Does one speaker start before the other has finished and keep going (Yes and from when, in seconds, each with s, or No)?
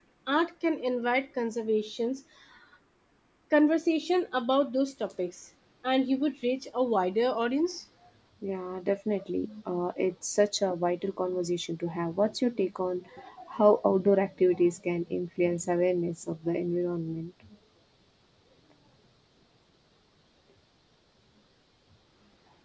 No